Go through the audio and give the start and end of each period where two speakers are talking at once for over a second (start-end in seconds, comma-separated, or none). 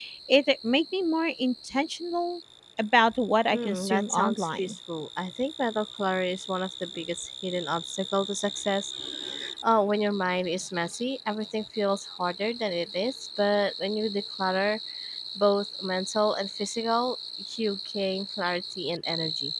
3.5-4.8